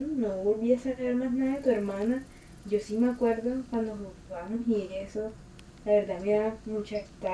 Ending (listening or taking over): listening